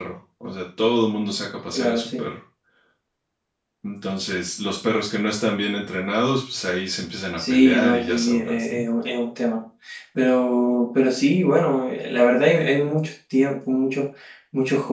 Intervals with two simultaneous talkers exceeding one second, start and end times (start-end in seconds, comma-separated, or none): 7.4-8.8